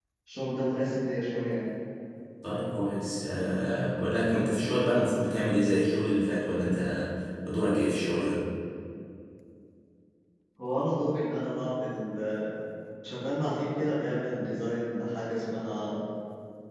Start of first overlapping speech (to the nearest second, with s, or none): none